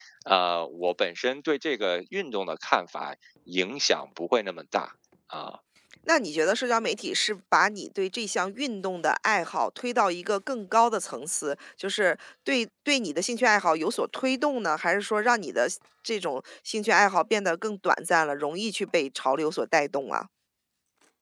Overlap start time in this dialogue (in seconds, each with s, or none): none